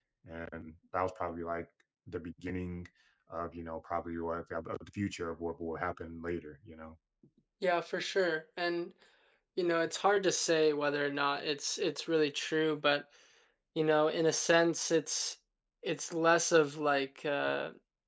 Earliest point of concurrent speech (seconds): none

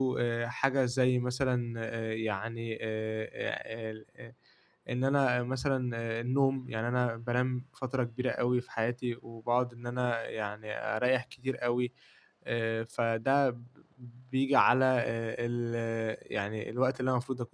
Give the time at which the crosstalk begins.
none

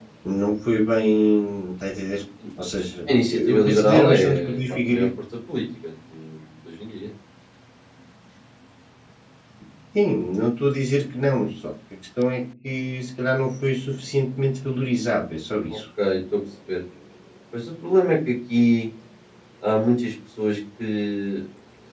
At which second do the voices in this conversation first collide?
3.3 s

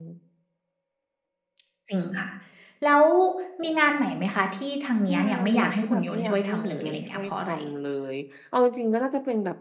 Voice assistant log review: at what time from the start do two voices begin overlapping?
5.1 s

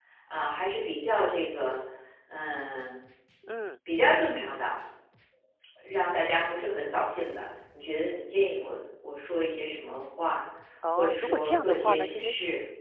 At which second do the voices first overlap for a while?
11.0 s

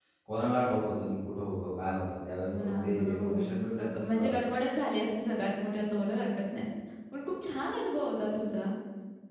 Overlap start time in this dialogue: 2.5 s

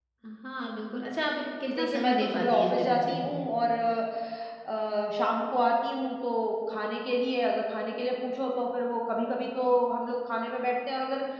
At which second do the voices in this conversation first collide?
1.6 s

